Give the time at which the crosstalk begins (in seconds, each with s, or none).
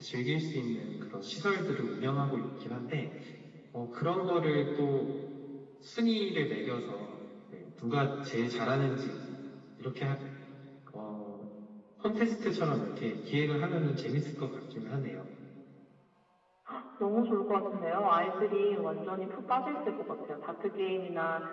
none